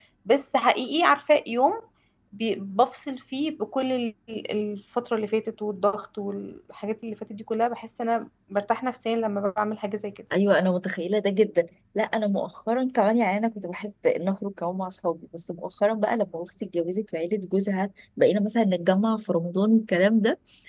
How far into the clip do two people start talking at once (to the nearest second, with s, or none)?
none